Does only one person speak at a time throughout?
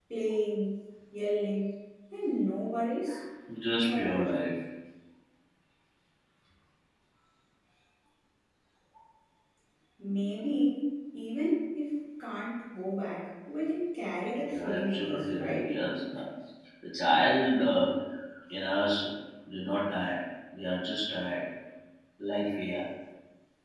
No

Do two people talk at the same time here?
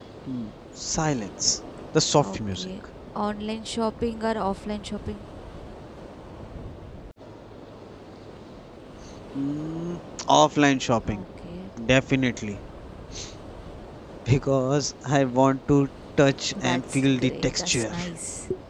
Yes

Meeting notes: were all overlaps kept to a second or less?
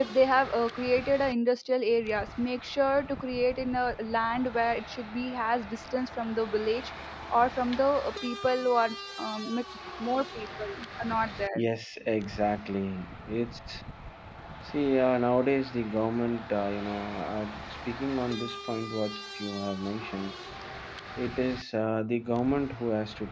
Yes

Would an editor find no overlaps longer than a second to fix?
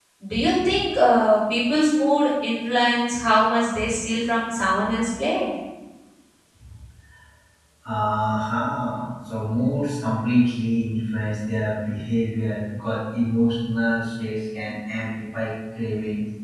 Yes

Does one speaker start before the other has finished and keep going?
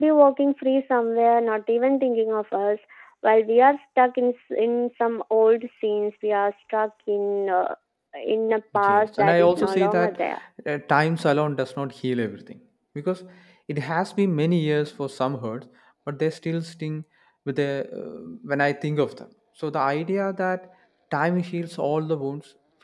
Yes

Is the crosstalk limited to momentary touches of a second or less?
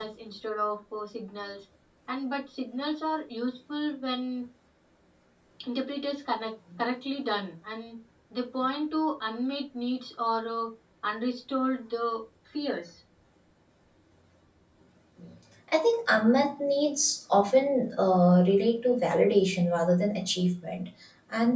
Yes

